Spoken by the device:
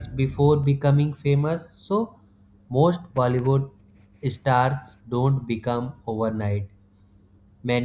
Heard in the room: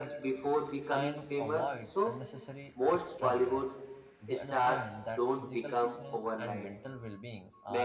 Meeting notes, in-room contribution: present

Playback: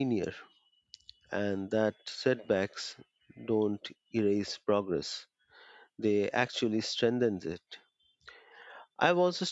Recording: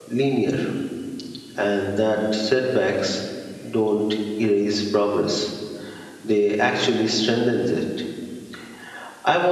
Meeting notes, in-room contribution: none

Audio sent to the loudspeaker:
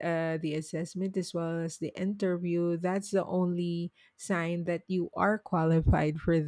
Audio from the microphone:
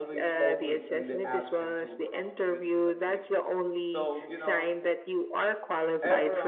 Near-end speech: present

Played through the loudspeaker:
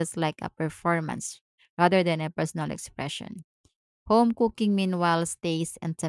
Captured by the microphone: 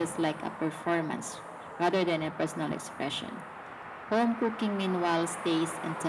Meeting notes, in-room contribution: none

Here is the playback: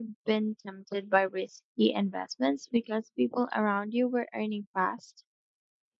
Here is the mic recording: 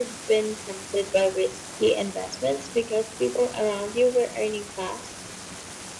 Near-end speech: none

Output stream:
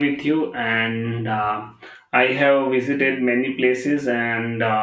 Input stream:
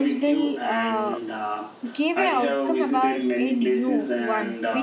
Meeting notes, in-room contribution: present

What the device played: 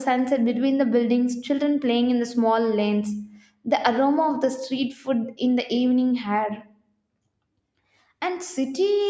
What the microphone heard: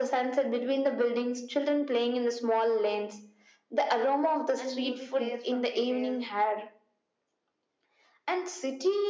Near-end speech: present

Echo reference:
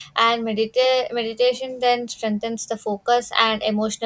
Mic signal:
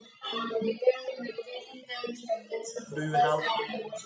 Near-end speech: present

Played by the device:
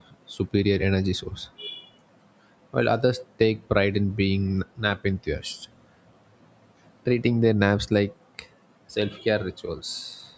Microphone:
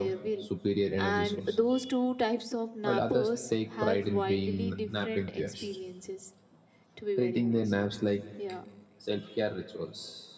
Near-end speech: present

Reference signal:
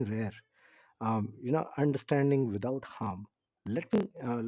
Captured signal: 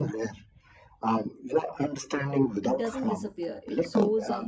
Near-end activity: present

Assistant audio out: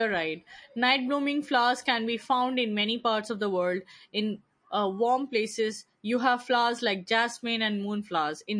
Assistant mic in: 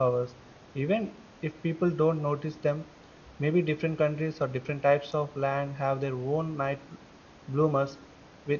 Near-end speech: present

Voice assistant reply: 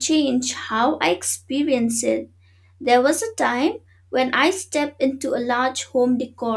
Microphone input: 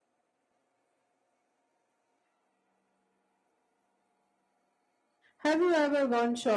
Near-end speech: present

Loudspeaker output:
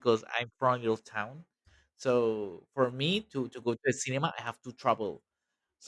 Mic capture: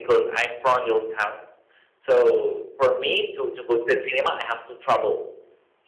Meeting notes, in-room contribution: none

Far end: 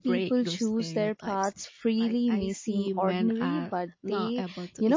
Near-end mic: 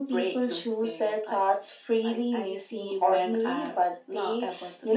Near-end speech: none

